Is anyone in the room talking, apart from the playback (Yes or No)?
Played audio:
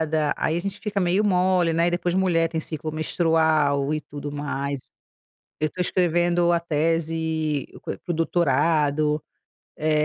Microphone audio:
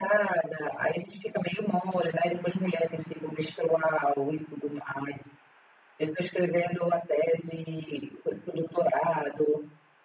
No